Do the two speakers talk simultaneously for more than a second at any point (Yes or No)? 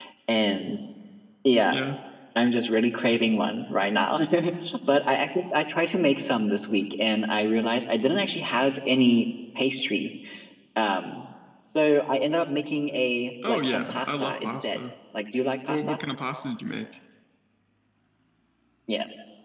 Yes